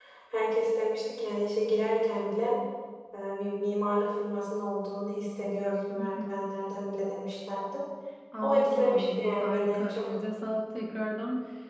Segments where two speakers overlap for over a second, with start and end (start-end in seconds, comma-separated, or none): 8.4-10.1